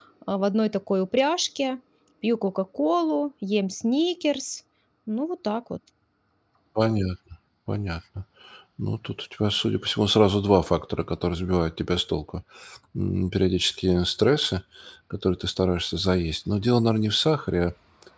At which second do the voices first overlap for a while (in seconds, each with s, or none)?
none